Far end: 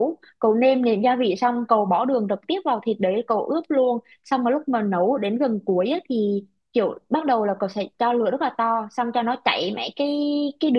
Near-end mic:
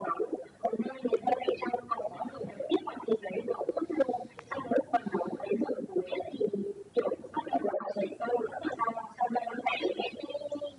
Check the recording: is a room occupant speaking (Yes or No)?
No